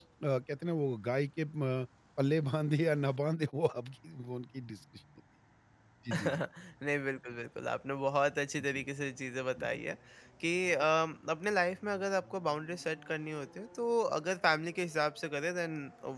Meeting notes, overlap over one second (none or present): none